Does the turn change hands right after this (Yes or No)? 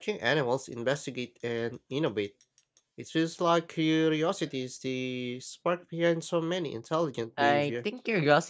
Yes